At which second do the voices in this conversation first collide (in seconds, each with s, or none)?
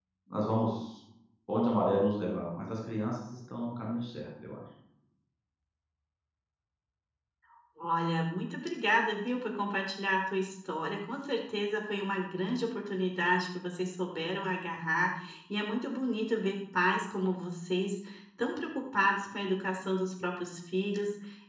none